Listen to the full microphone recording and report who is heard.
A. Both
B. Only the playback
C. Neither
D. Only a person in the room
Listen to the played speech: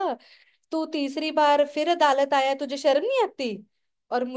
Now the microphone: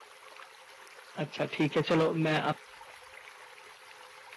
D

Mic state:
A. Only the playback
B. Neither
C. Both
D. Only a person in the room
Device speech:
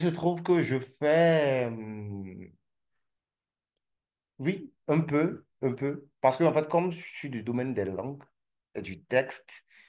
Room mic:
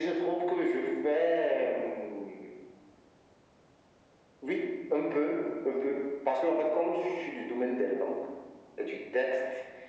A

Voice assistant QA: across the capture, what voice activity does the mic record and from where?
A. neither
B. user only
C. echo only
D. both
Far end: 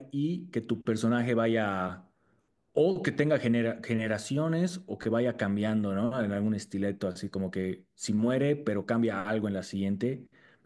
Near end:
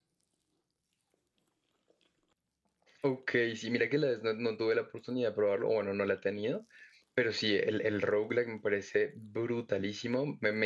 B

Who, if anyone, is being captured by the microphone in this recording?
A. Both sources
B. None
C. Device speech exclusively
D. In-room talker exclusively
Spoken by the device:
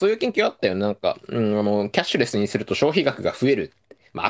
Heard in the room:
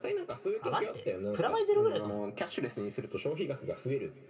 A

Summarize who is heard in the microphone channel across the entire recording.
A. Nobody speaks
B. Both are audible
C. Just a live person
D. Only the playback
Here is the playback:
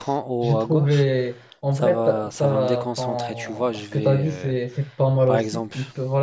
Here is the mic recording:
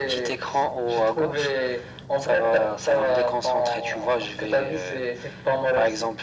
D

